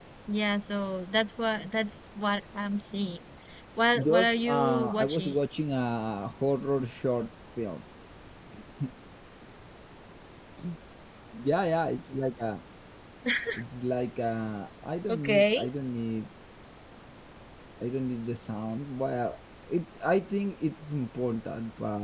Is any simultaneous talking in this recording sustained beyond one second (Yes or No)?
Yes